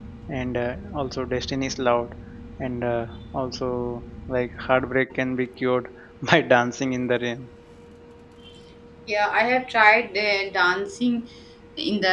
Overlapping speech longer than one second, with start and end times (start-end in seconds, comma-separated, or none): none